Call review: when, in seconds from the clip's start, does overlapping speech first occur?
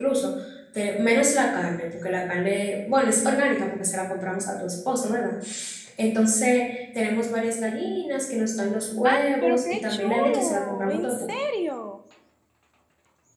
9.0 s

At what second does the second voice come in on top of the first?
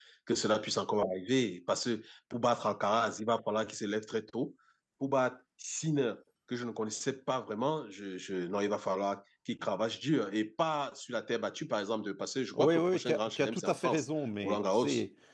12.5 s

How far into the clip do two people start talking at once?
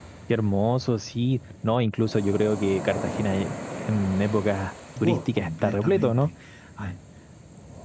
5.0 s

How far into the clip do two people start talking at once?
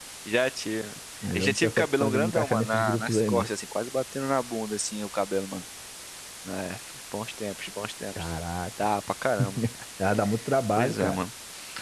1.3 s

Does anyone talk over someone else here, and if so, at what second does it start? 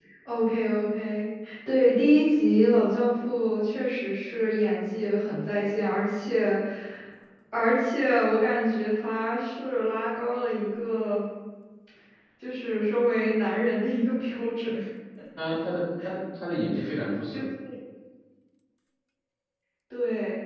none

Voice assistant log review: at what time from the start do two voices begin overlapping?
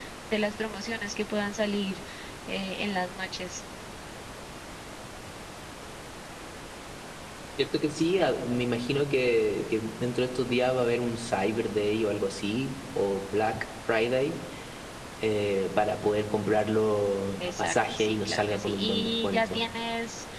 17.4 s

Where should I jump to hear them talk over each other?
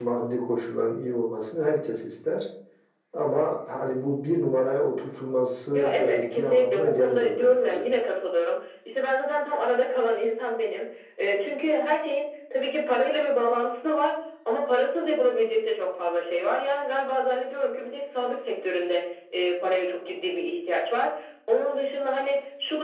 5.7 s

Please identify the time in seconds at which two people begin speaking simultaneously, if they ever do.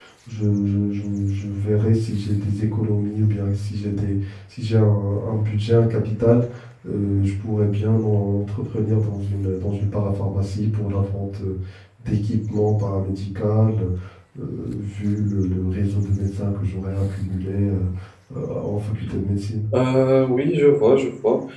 none

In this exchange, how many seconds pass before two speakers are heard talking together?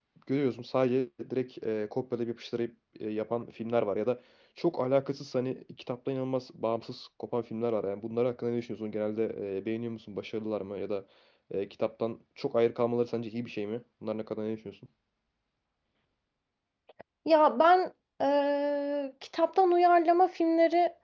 none

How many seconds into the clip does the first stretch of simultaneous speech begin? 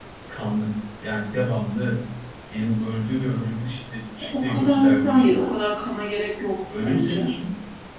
4.3 s

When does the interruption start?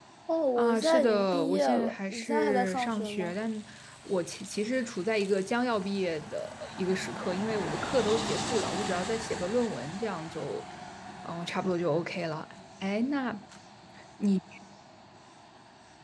0.6 s

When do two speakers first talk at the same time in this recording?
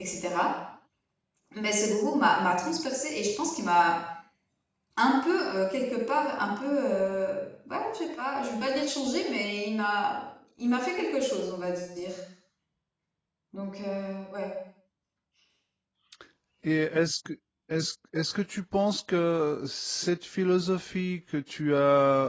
none

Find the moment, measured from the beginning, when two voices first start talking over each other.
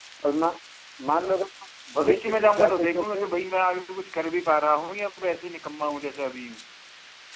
2.0 s

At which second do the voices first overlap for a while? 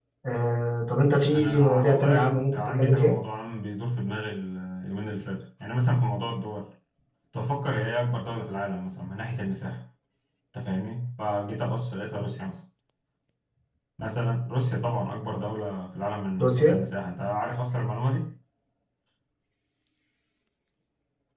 1.3 s

